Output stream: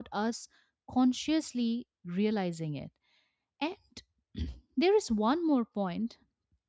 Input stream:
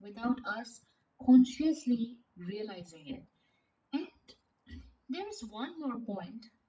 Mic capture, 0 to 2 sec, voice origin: echo only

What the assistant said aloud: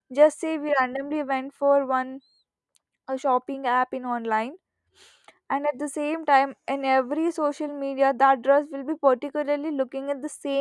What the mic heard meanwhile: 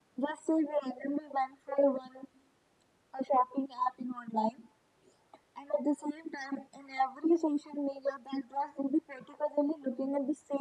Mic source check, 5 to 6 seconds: echo only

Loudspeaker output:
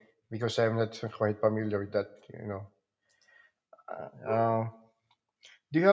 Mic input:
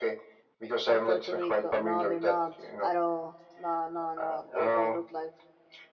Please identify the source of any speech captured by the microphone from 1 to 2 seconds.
both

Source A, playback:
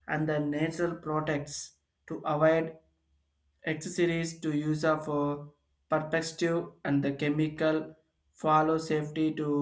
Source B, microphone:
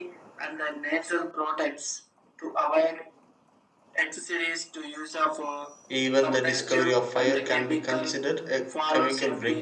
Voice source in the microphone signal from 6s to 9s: both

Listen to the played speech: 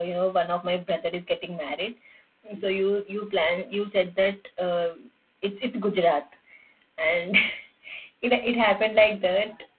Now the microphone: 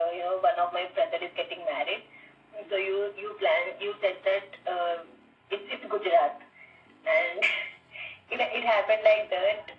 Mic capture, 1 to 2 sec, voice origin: echo only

